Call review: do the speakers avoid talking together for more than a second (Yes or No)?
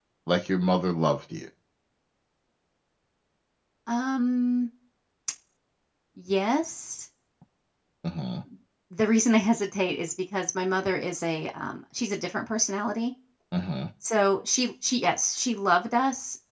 Yes